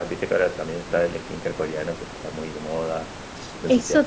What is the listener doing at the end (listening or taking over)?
taking over